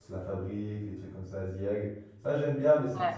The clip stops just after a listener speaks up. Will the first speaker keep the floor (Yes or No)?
Yes